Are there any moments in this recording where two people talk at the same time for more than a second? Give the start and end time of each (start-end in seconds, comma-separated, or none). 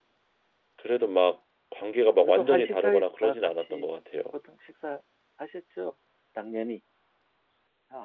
2.2-3.9